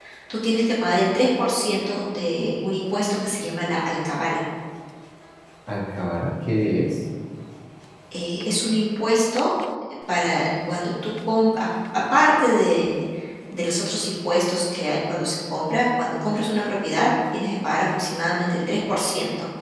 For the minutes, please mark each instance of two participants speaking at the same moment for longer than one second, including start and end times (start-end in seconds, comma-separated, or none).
none